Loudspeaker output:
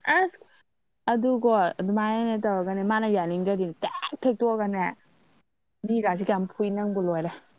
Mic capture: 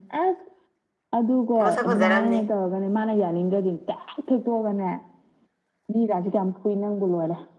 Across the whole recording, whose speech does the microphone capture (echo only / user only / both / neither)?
both